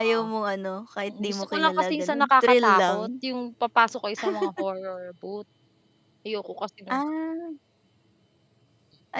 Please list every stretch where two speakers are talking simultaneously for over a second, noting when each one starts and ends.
1.1-3.0

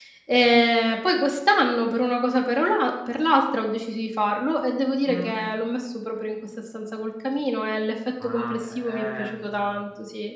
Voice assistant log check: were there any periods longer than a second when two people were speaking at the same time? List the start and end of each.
8.2-9.8

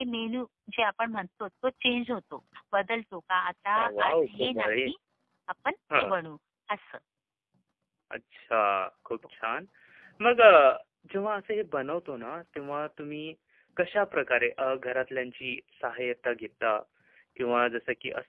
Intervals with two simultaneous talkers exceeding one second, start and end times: 3.6-4.9

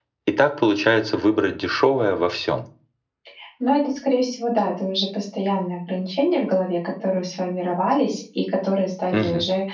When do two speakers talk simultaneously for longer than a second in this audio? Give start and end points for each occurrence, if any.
none

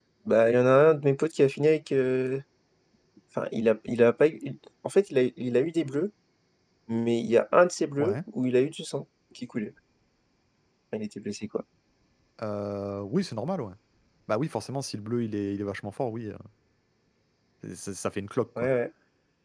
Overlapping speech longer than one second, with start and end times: none

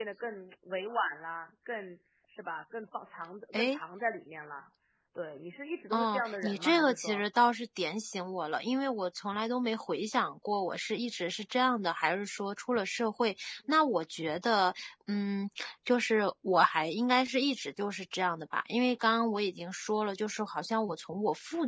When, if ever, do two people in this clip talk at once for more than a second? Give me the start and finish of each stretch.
5.9-7.2

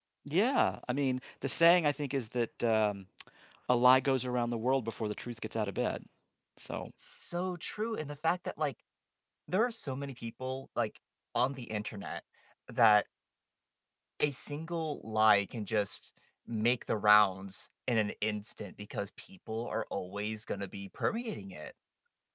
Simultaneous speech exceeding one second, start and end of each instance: none

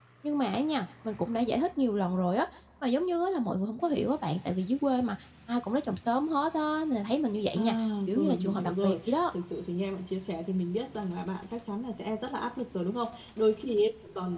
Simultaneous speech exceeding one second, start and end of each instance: 7.5-9.2

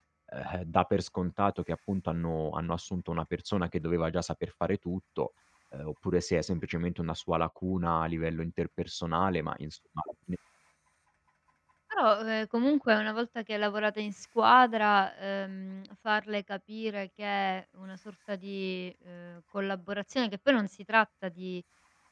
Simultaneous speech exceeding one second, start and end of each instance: none

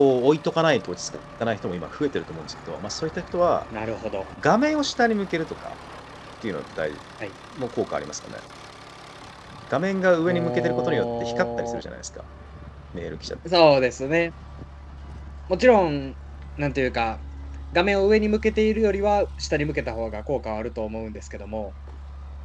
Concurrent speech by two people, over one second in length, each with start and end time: 10.3-11.8

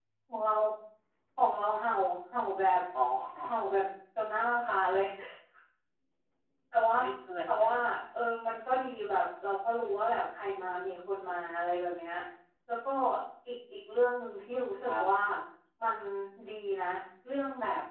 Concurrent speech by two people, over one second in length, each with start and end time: none

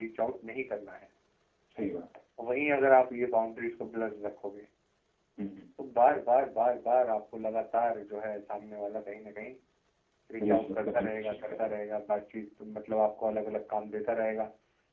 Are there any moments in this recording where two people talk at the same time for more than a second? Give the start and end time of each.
10.4-11.7

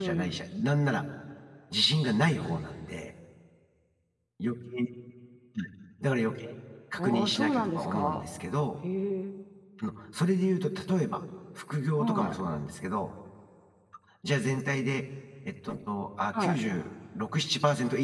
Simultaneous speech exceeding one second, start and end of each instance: 7.0-8.2

